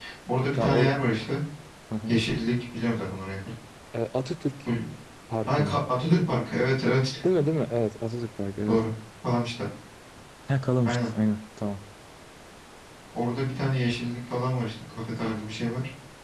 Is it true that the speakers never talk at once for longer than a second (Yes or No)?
Yes